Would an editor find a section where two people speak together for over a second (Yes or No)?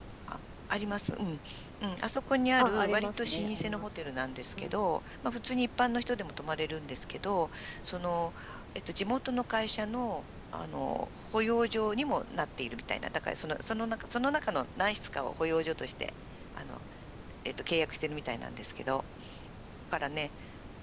Yes